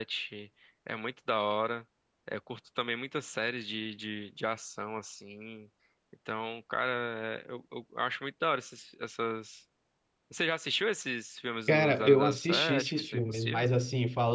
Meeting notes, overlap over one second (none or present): present